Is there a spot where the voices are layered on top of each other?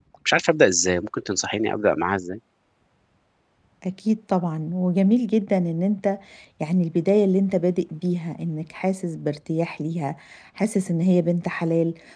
No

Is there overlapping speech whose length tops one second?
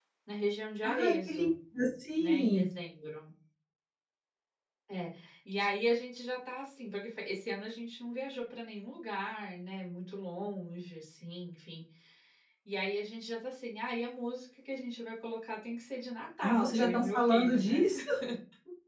Yes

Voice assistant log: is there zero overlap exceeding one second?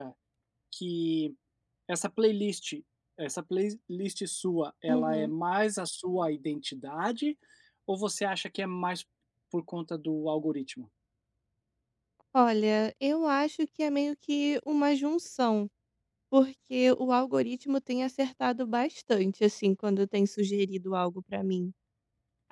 Yes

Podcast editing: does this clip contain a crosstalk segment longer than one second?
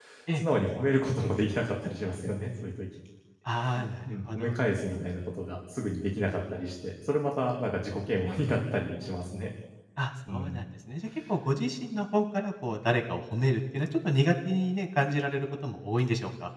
No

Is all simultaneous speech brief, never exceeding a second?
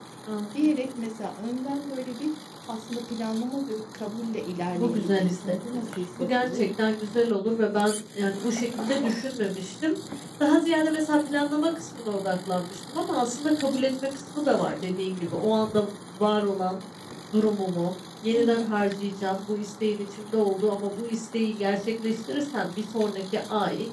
No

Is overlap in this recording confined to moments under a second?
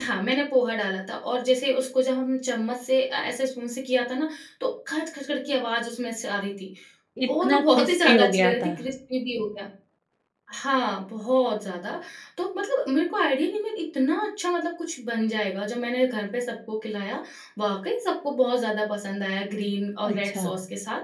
No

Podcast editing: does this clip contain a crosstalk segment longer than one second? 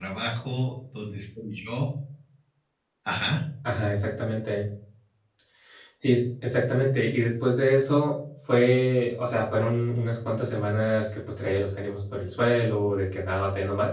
No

